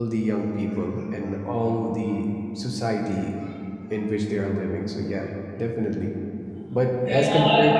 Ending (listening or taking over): taking over